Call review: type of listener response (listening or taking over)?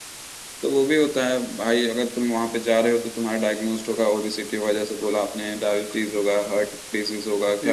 listening